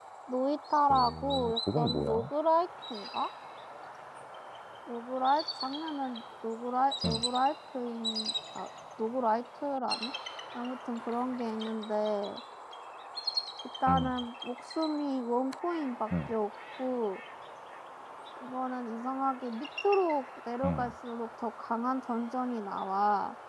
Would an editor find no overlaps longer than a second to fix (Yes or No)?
No